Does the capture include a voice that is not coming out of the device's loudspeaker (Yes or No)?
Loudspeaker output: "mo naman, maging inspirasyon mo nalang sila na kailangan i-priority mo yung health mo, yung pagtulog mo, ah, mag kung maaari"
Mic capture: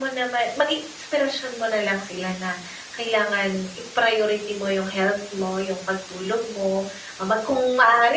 No